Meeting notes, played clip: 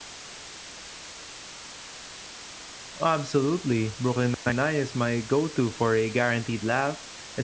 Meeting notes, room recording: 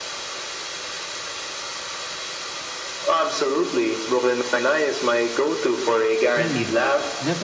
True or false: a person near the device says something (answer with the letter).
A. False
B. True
B